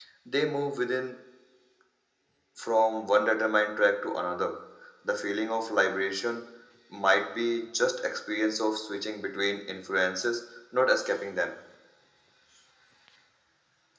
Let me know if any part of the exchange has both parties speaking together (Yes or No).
No